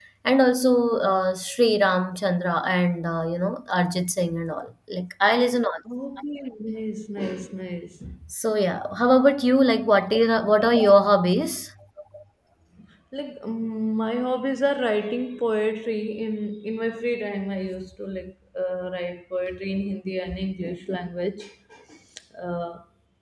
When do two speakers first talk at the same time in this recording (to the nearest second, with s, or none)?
none